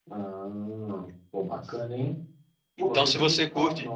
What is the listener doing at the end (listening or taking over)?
taking over